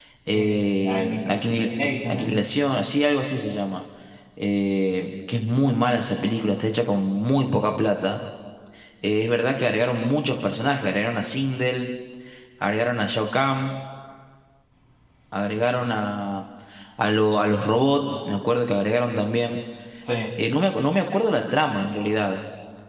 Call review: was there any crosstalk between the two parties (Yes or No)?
Yes